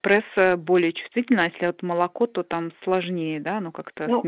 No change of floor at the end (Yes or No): Yes